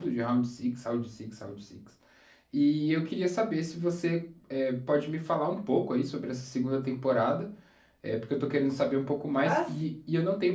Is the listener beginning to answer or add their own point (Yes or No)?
No